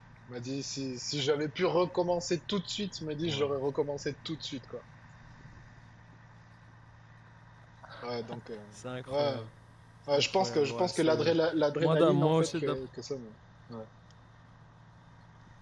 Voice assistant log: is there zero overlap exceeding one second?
No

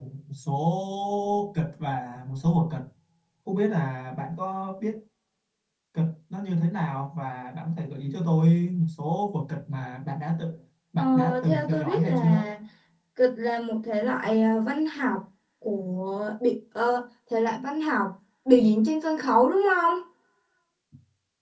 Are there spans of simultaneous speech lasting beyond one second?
Yes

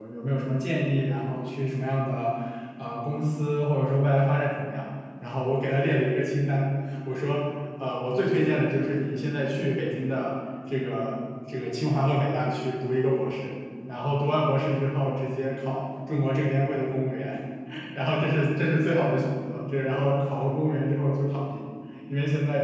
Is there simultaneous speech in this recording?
No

